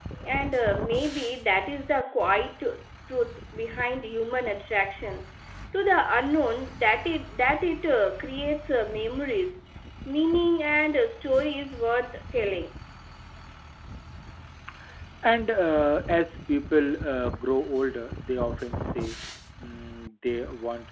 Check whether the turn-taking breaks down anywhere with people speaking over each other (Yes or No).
No